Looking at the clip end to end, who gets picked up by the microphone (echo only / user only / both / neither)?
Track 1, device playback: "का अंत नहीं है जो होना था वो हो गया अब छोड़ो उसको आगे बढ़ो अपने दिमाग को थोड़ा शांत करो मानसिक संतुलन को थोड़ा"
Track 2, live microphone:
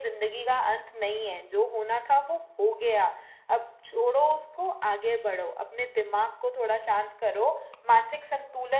echo only